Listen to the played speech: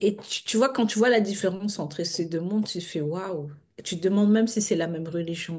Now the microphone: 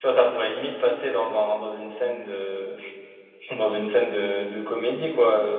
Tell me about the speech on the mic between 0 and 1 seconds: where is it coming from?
user only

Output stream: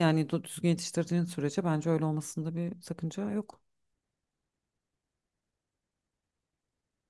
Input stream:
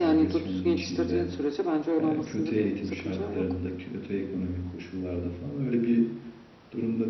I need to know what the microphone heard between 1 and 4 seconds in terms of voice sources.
both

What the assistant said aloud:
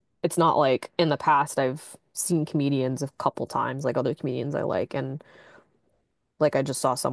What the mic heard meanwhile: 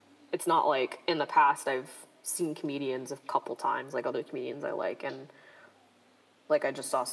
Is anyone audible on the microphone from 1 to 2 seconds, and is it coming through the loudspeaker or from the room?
echo only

